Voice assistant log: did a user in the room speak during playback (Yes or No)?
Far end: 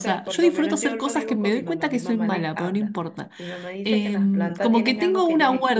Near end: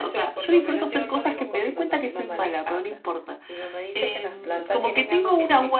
No